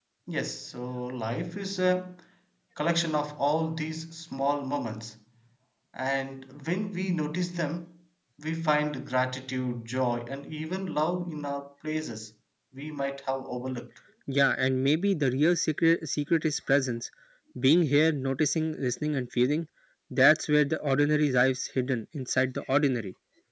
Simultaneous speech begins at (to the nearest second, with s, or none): none